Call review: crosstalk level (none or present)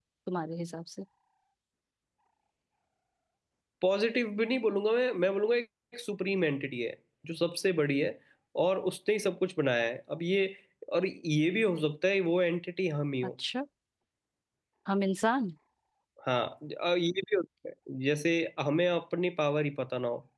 none